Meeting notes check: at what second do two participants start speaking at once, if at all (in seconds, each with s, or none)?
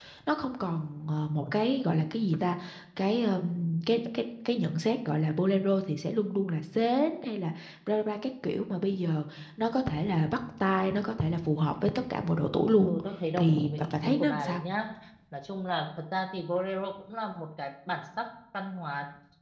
13.4 s